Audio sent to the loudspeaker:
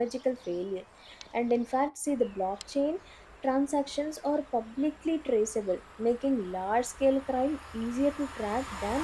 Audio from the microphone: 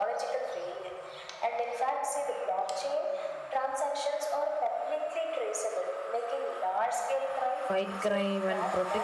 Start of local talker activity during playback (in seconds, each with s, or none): 7.7 s